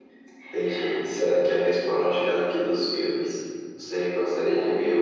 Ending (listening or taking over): listening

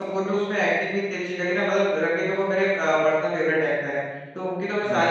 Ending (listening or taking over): listening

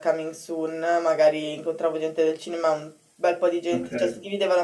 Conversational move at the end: listening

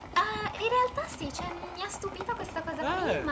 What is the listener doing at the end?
listening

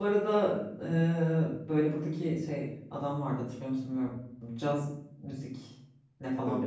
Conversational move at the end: taking over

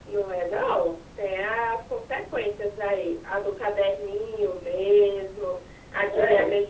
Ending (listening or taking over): listening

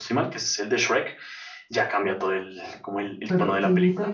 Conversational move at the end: taking over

